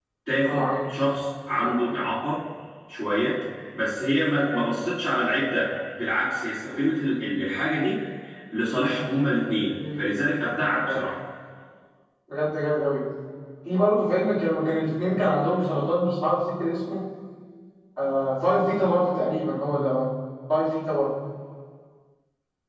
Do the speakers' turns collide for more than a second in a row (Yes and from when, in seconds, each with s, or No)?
No